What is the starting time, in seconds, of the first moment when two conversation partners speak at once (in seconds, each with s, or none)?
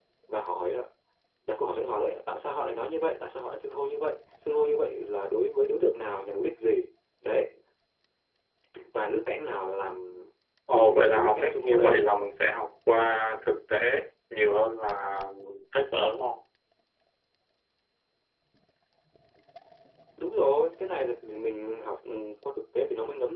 10.7 s